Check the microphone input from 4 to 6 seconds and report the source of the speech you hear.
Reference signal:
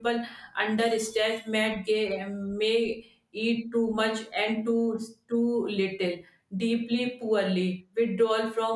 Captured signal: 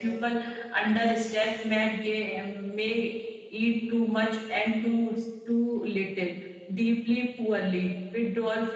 echo only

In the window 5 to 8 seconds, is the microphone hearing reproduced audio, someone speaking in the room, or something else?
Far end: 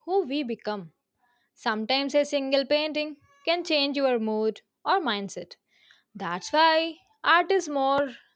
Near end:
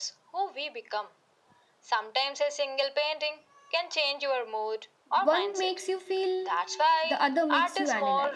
both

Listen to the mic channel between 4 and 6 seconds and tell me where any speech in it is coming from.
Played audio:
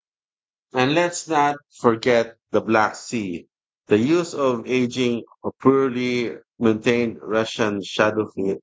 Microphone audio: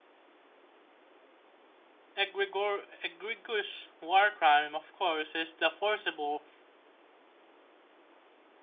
user only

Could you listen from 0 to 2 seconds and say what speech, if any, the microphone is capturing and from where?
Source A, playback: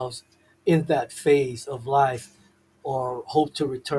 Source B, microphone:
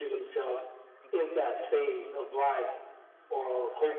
both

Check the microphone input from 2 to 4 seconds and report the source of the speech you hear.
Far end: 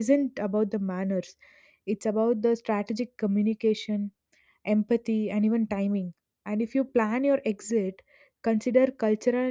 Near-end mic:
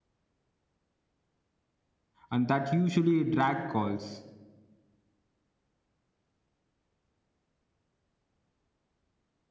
user only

